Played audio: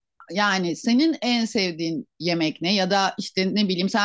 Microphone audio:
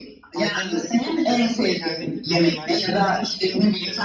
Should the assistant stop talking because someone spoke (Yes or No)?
Yes